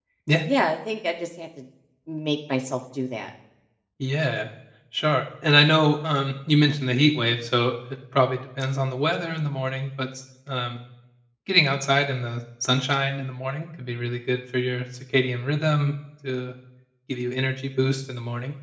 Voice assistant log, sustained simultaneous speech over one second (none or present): none